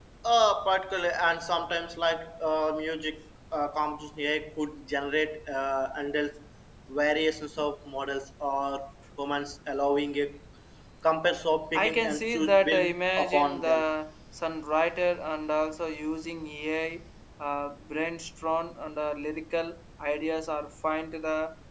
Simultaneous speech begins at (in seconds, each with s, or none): 11.8 s